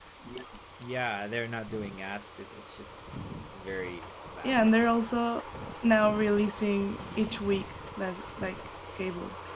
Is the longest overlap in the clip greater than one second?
No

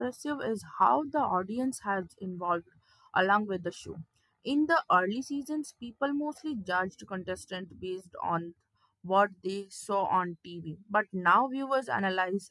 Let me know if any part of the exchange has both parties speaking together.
No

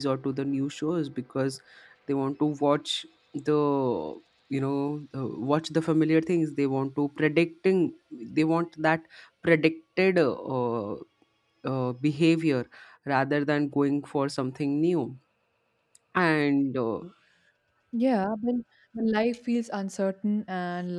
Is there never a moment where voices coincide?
Yes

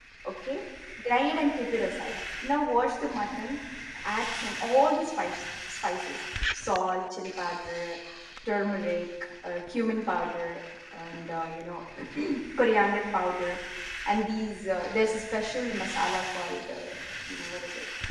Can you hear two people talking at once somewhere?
No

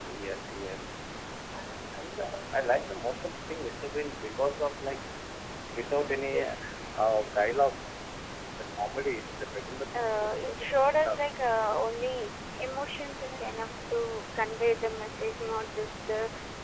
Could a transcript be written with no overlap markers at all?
No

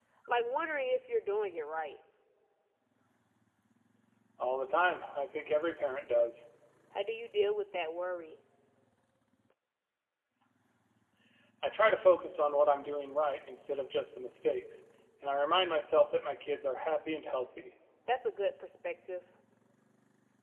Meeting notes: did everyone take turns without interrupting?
Yes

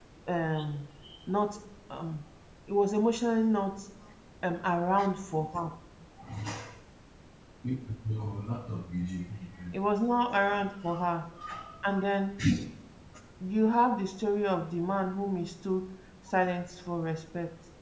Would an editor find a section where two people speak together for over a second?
No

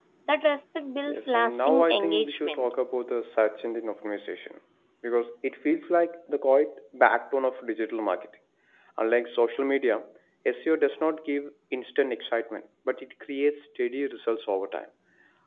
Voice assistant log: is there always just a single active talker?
No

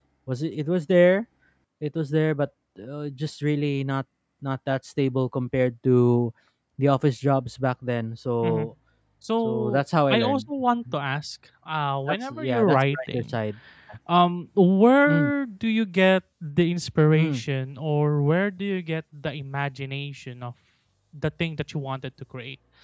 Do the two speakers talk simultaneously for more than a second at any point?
Yes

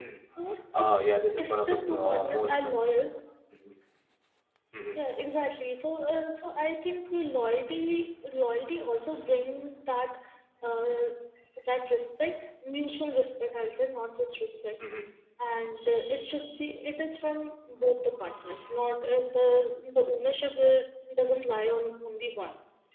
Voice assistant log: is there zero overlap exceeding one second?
No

